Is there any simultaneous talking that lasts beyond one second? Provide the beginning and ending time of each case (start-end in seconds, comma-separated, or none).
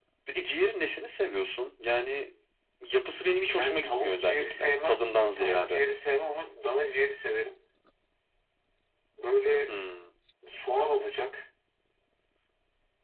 3.5-5.0